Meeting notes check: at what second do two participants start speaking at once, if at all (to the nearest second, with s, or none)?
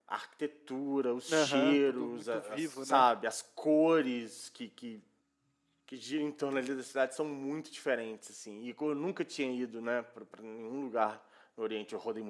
1 s